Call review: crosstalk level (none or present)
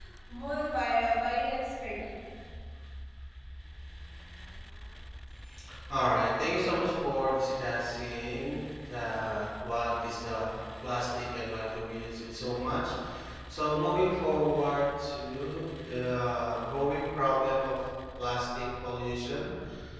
none